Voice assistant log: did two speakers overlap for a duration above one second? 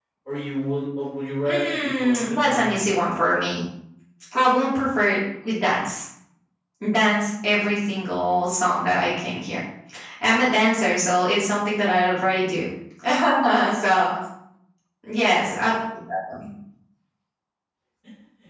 Yes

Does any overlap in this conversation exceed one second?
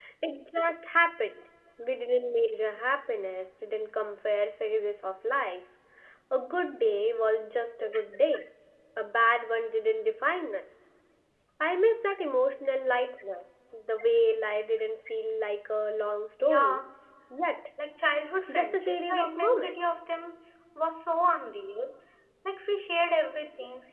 Yes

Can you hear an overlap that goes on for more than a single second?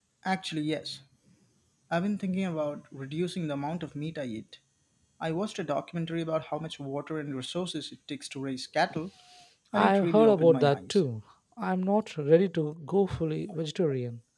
Yes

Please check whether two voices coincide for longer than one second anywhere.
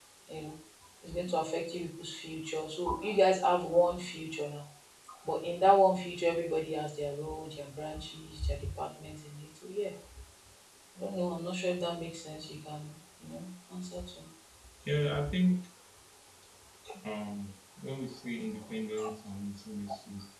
No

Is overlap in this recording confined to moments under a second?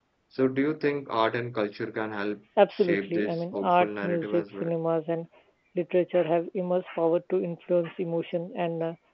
No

